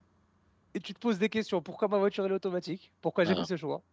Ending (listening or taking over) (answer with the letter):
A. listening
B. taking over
A